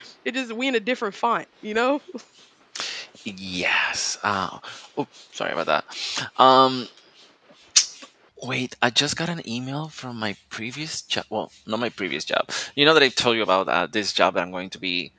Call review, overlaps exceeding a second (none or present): none